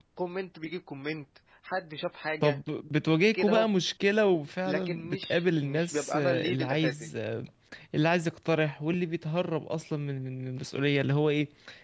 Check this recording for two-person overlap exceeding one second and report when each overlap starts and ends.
4.7-7.1

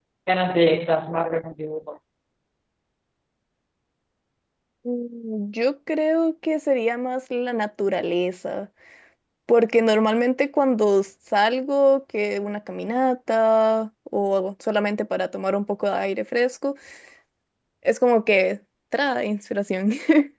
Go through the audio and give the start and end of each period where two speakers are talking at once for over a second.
none

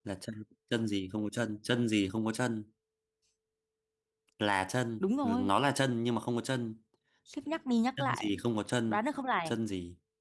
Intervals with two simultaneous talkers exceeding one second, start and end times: none

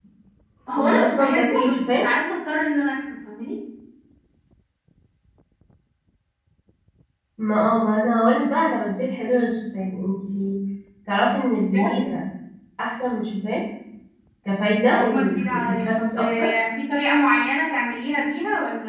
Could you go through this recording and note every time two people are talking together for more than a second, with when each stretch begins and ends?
0.8-2.0, 14.8-16.5

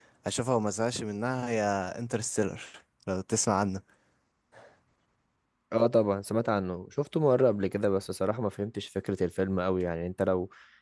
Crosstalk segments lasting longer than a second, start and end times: none

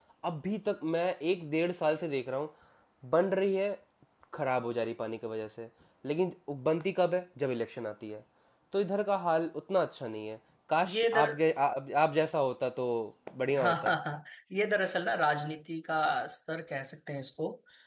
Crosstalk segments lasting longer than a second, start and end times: none

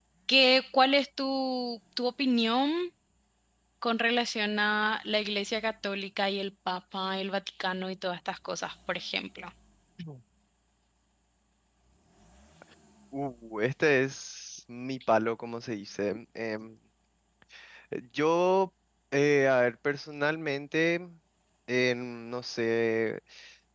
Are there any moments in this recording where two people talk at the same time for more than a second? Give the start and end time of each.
none

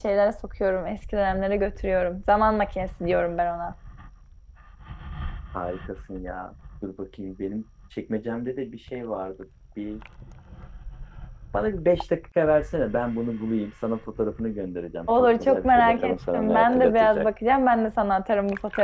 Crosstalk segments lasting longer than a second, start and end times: 15.2-17.3

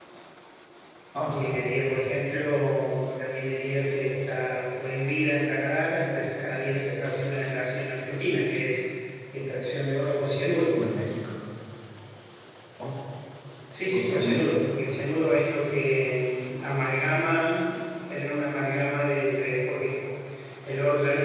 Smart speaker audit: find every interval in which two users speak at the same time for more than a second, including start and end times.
none

